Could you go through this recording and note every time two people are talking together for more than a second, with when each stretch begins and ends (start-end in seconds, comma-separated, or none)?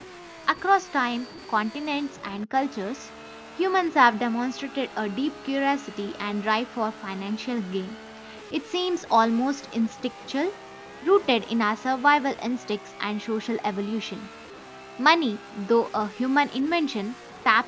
none